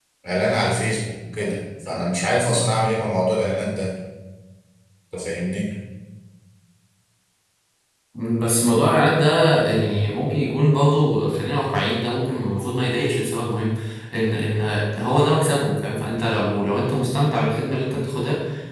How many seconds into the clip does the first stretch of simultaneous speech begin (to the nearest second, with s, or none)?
none